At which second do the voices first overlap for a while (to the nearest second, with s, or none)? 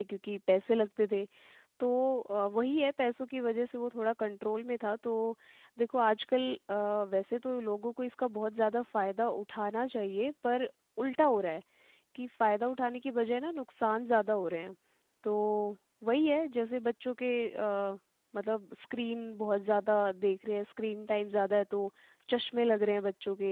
none